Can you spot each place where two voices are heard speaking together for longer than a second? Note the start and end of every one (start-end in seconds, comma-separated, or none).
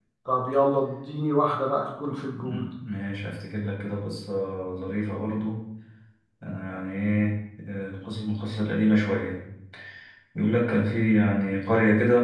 none